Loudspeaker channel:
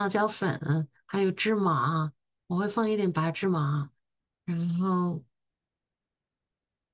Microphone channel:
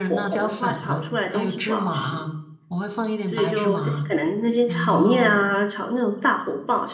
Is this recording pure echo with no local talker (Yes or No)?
No